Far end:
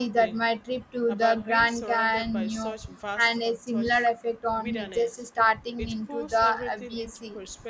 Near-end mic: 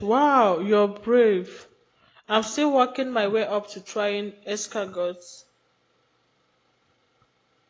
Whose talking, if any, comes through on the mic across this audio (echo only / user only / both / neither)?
user only